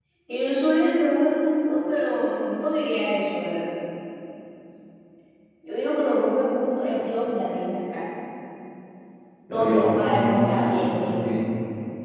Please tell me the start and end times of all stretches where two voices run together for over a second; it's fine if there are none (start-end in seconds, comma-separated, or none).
9.5-11.2